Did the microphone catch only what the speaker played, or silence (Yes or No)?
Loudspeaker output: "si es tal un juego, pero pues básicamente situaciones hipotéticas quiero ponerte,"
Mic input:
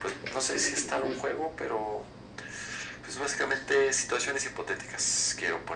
Yes